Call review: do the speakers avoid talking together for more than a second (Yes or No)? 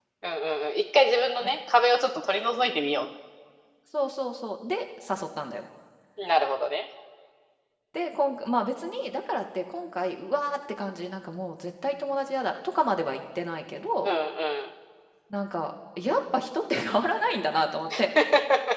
Yes